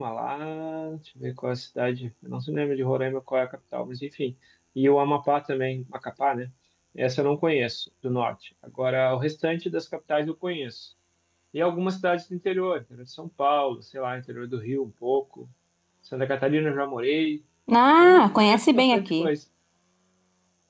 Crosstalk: present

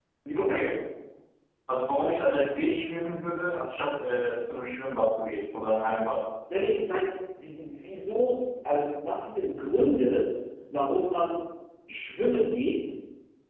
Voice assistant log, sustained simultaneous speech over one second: none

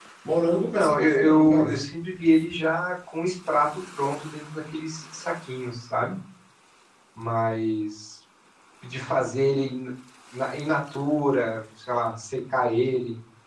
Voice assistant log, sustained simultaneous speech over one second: present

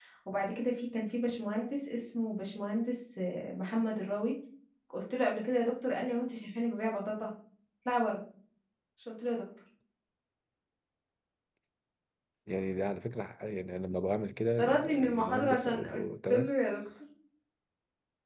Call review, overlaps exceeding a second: present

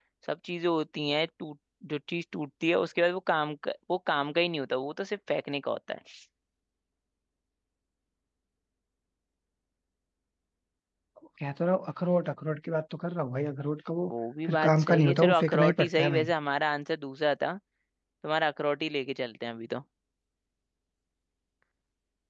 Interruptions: present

